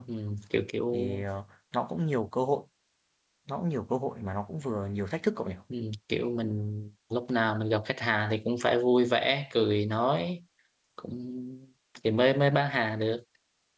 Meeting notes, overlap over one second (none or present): none